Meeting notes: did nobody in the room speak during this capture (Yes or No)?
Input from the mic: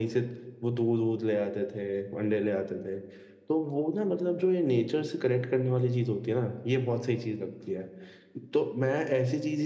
Yes